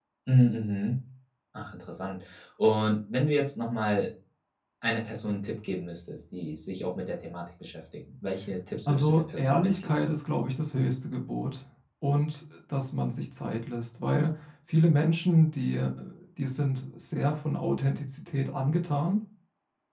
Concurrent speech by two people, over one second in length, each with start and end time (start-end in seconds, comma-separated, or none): 8.9-10.1